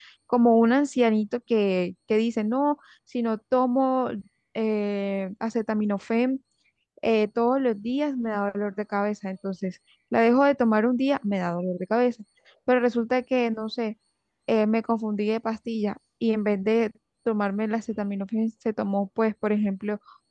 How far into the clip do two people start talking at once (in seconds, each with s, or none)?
none